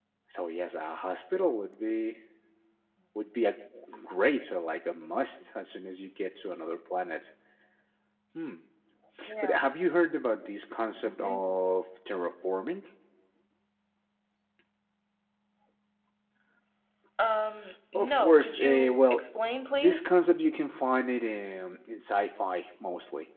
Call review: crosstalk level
present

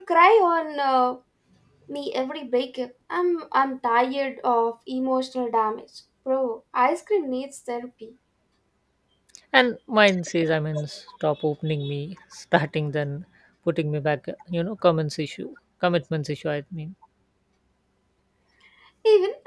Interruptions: none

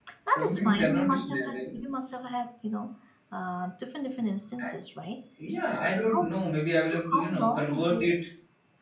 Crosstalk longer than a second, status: present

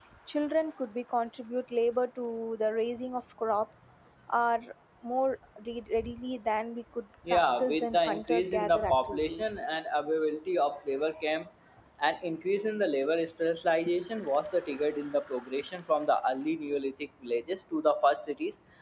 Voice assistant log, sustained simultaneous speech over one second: present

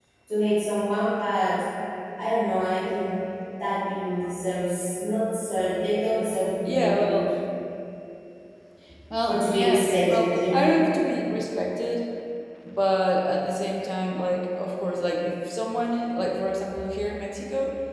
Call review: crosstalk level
present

